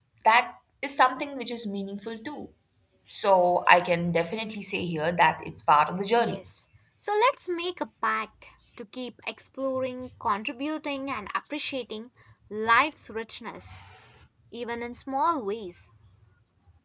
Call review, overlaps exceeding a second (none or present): none